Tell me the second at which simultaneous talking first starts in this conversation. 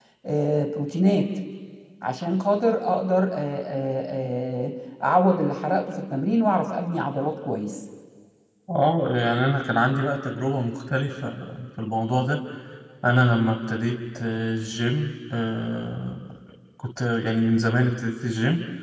none

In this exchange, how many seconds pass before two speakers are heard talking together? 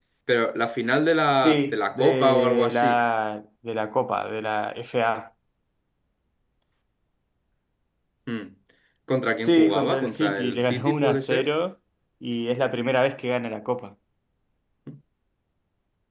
1.4 s

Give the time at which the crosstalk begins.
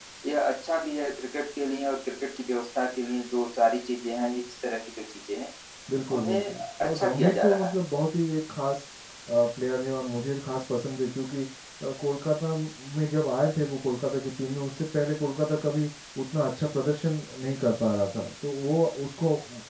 6.2 s

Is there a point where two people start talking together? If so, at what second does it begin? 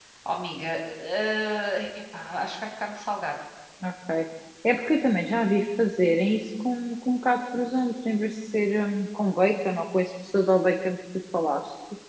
none

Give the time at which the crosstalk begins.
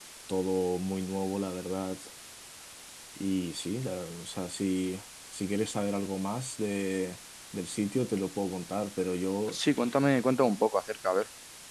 none

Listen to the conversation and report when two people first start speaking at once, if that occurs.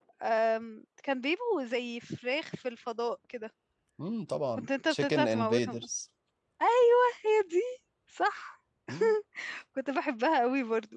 4.6 s

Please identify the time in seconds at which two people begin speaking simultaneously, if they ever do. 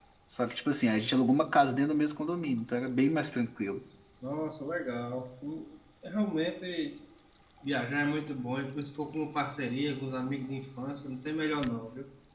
none

